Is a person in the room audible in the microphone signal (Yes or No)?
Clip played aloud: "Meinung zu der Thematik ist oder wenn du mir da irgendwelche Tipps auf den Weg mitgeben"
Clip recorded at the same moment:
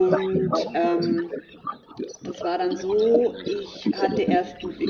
Yes